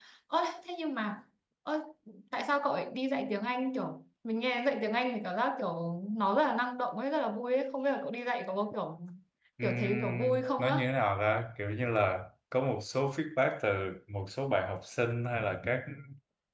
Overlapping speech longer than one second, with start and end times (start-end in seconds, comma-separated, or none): 9.6-10.8